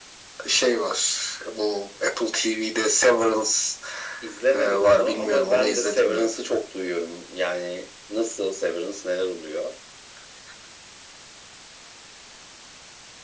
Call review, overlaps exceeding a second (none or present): present